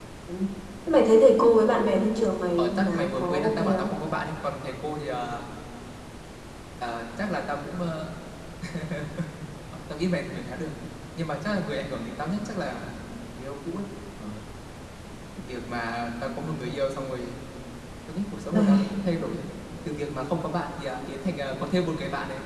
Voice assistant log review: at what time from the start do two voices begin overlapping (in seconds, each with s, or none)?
2.6 s